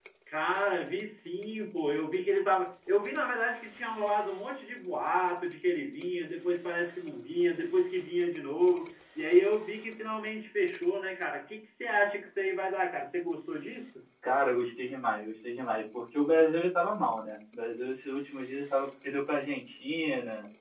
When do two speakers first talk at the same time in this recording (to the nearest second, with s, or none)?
none